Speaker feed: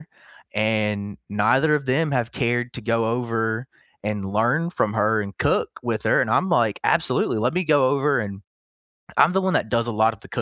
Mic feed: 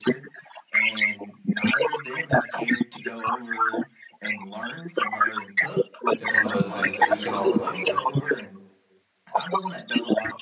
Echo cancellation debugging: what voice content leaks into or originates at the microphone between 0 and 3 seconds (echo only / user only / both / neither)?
echo only